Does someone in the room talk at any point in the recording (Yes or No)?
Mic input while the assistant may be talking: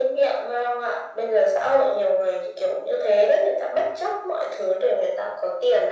No